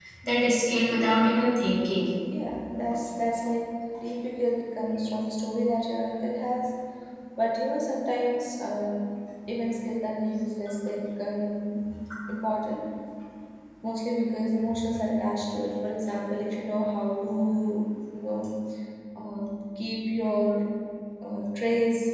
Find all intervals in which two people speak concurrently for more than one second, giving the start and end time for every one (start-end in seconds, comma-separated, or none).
none